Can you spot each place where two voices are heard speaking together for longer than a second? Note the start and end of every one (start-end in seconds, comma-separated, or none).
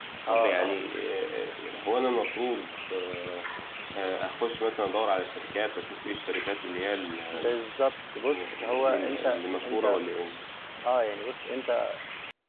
8.3-10.0